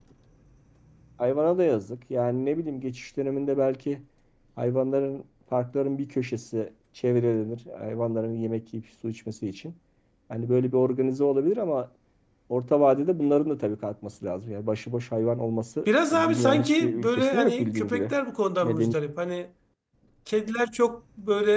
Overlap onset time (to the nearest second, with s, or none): 16 s